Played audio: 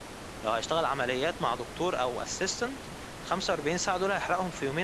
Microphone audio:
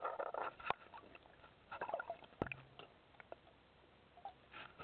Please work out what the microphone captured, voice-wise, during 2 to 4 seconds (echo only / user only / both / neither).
neither